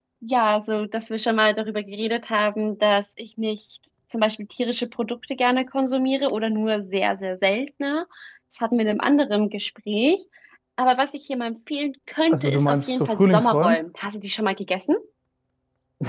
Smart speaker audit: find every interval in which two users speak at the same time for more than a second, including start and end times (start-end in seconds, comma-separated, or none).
12.3-13.8